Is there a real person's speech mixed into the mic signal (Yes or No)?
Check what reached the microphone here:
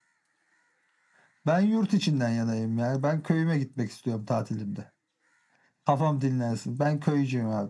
No